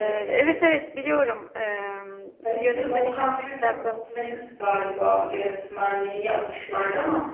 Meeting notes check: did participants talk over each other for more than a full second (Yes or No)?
Yes